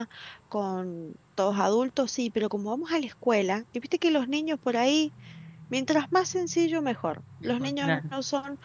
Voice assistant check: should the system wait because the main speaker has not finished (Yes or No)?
Yes